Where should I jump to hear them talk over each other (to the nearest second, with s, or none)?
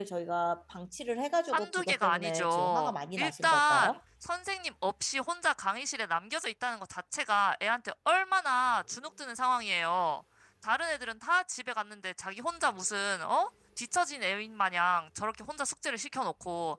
1 s